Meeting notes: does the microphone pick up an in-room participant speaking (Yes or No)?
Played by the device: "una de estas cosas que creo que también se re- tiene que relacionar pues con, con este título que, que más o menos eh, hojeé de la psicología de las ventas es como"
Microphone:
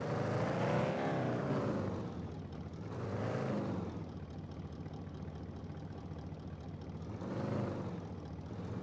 No